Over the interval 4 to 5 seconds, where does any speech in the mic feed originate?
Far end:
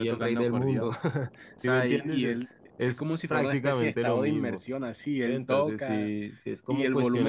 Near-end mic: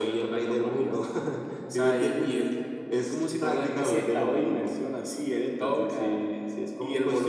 echo only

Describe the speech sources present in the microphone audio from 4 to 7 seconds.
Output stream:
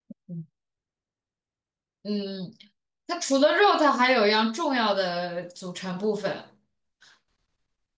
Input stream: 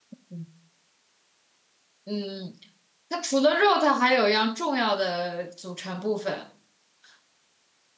echo only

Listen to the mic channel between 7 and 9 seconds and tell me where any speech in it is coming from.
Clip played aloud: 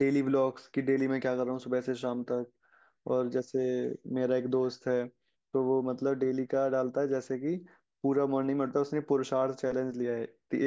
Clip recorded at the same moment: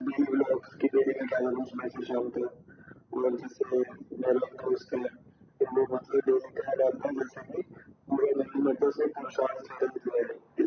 echo only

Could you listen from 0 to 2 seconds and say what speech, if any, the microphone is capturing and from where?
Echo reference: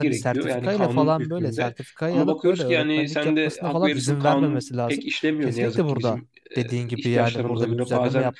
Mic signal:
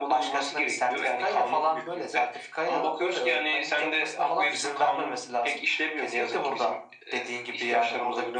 echo only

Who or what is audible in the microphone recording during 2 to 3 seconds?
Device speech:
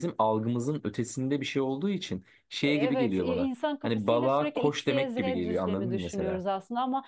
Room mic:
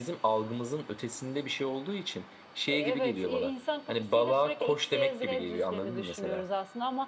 echo only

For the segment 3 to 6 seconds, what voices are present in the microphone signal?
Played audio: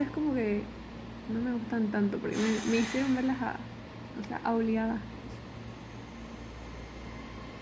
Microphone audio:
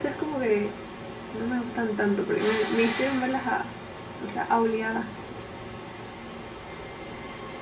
echo only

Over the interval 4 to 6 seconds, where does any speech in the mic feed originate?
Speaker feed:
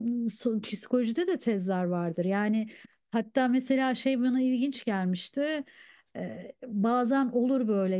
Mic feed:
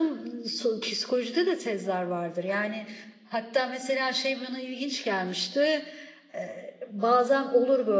echo only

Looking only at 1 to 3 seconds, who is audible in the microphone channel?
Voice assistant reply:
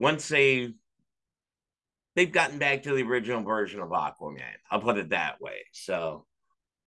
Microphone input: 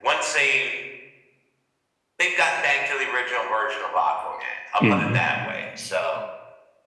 echo only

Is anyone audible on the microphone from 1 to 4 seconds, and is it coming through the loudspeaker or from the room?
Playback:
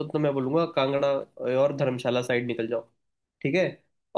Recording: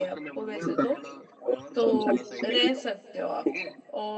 both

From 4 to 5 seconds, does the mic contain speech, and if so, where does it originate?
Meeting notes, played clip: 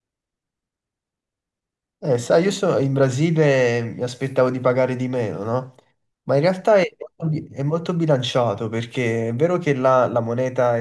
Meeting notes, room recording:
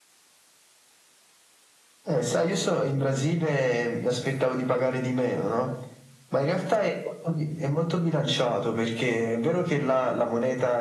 echo only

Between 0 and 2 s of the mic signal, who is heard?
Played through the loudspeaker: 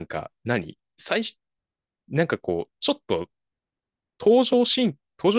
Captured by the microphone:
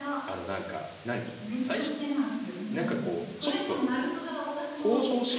both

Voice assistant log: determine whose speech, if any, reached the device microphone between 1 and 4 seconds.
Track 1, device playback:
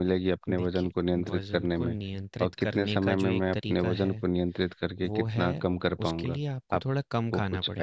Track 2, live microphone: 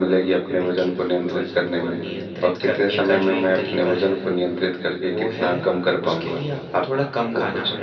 echo only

